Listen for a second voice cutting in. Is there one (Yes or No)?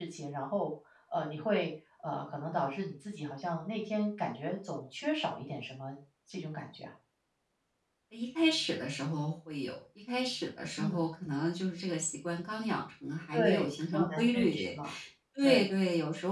Yes